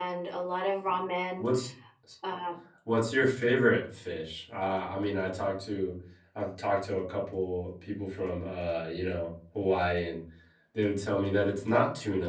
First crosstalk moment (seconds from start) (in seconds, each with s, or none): none